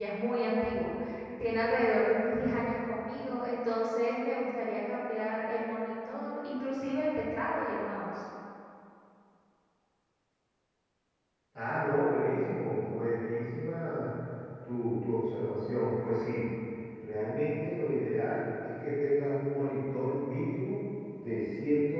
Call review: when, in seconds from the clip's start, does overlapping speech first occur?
none

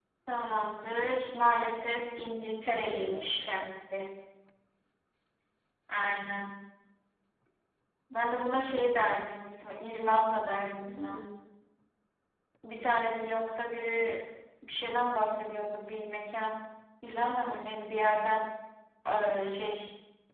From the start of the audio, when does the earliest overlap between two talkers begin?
1.9 s

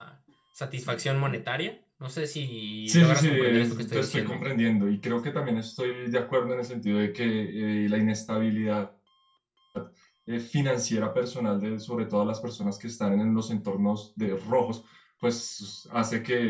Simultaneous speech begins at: 2.9 s

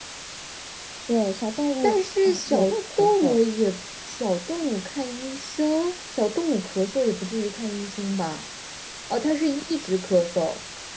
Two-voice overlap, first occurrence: 1.8 s

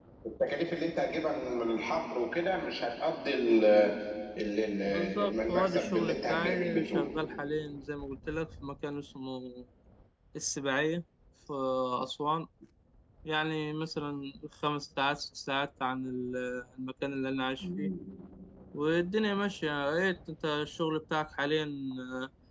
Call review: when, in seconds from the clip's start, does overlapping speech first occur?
4.8 s

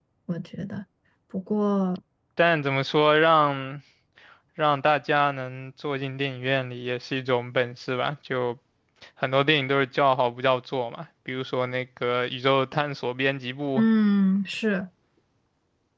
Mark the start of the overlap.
none

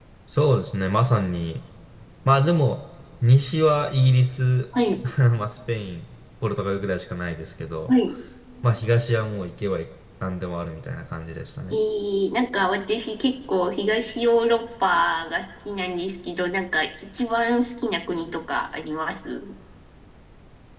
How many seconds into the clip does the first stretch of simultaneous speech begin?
none

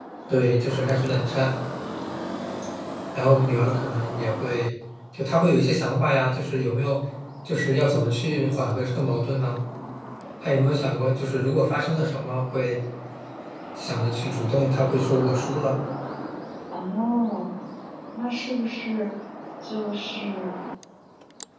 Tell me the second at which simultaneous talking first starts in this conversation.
none

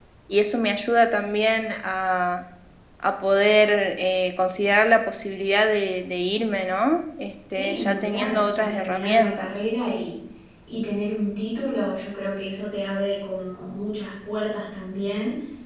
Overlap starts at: 7.5 s

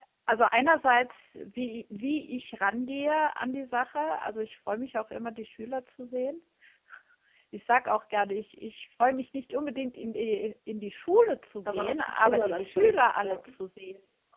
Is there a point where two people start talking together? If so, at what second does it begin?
11.6 s

